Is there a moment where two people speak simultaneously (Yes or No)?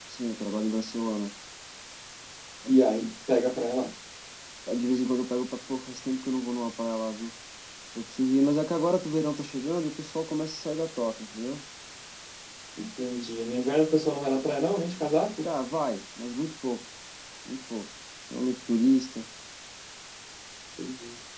No